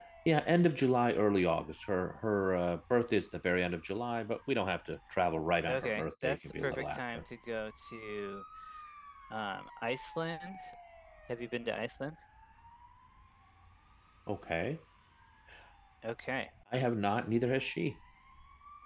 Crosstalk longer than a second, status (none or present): present